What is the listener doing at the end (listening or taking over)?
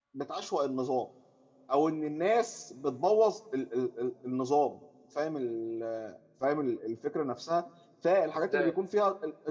listening